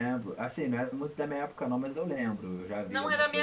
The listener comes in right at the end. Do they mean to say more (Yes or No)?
Yes